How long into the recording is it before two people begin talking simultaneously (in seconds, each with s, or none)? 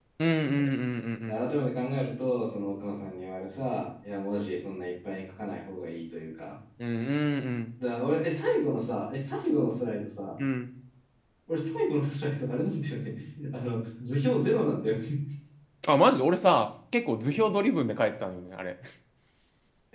none